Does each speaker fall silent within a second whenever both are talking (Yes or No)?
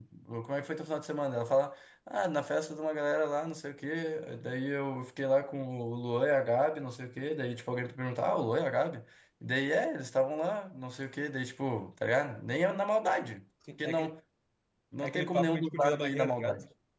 No